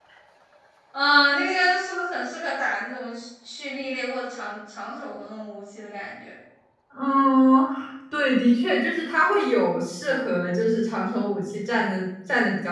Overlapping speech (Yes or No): No